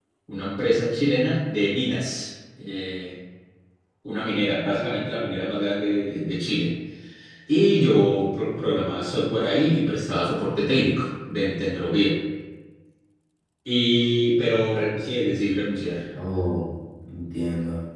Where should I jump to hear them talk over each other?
none

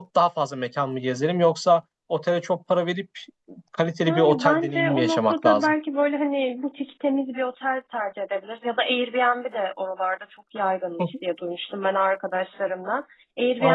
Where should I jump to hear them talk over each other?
4.0 s

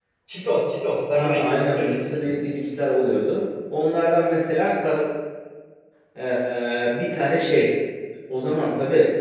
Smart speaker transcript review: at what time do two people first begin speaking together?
1.1 s

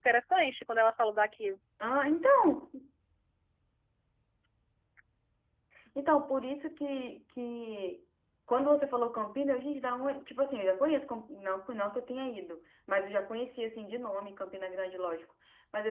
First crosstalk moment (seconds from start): none

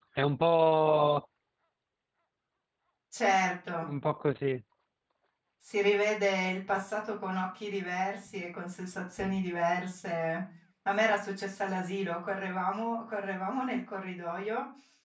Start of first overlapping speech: none

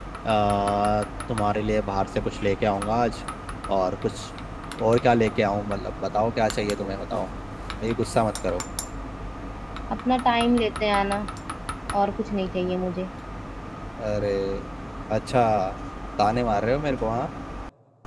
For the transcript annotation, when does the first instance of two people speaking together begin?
none

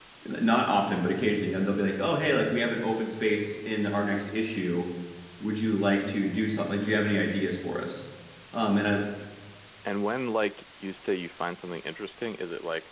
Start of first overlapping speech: none

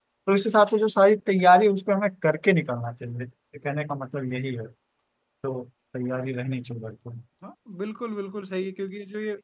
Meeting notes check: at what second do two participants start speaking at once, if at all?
none

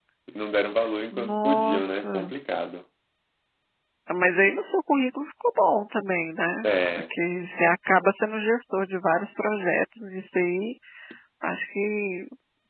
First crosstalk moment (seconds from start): 1.1 s

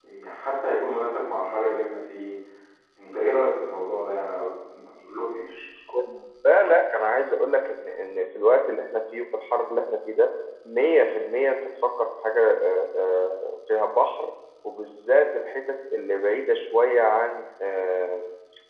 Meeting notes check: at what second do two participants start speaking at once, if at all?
none

